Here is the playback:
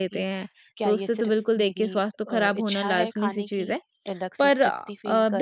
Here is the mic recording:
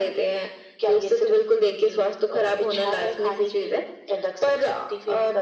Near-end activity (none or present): none